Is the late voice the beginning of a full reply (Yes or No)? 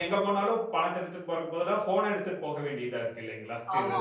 Yes